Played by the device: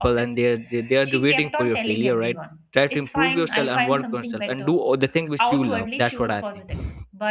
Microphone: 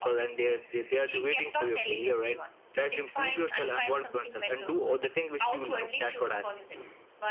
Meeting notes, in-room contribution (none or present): none